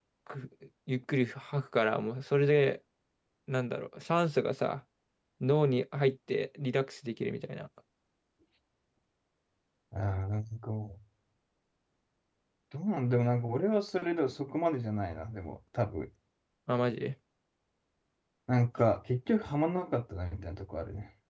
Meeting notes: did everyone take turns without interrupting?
Yes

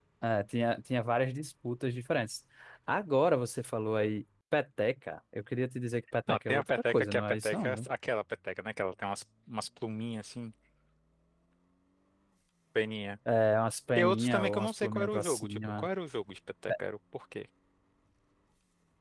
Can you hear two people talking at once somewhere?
Yes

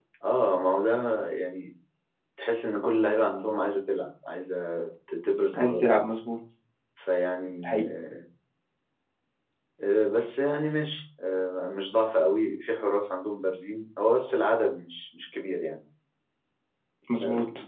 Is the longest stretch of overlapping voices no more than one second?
Yes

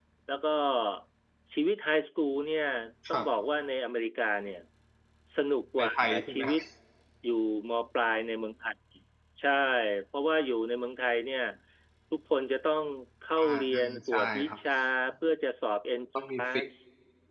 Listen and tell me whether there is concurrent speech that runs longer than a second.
Yes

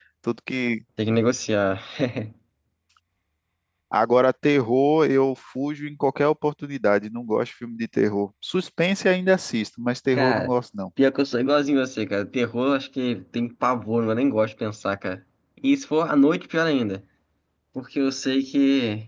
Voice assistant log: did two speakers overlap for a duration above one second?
No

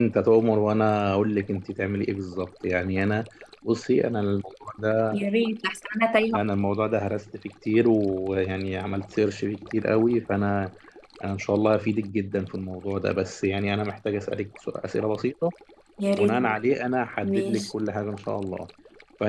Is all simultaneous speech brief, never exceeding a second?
Yes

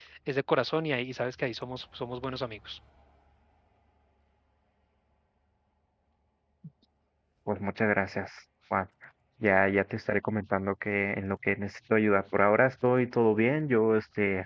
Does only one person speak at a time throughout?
Yes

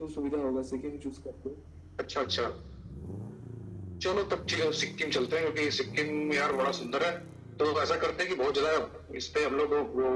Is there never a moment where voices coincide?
Yes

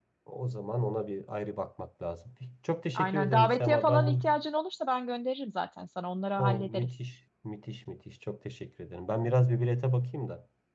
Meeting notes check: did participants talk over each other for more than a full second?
Yes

